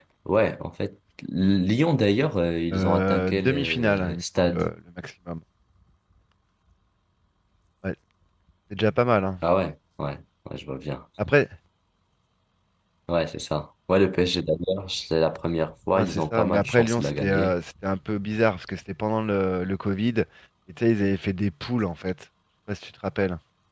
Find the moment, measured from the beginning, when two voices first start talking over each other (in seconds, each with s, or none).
2.7 s